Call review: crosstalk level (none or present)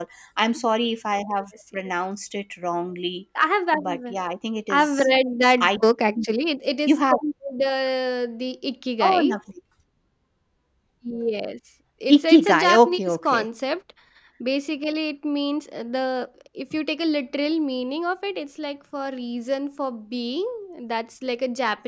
present